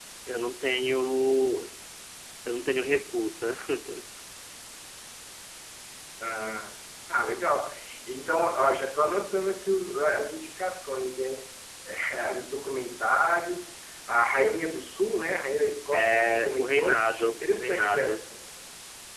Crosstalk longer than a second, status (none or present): present